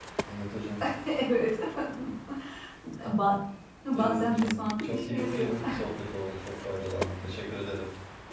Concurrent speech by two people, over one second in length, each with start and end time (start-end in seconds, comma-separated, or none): 3.9-5.5